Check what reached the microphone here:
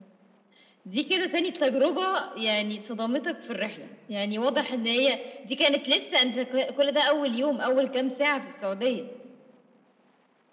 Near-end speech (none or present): none